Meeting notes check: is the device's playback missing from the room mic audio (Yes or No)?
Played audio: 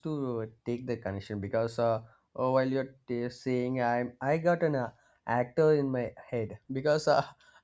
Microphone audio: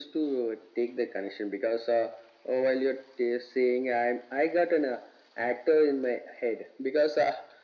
No